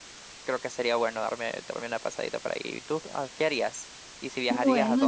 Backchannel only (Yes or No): No